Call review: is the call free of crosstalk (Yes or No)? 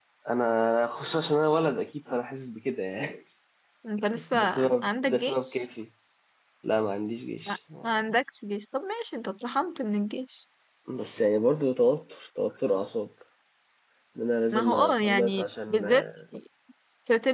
No